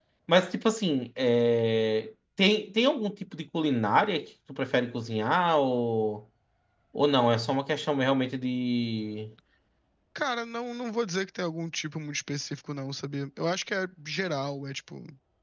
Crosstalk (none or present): none